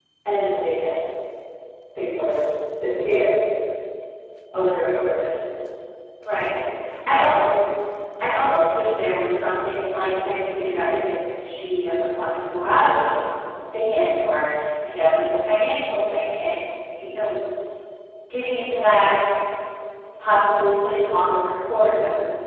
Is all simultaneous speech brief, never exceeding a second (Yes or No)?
Yes